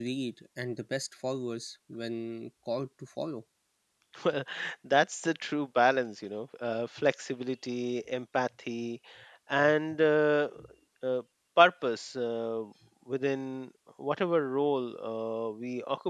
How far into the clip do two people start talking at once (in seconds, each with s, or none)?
none